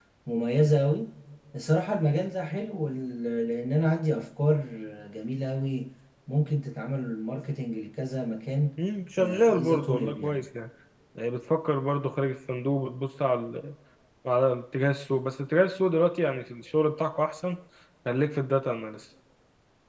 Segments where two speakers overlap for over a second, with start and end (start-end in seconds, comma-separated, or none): 9.2-10.4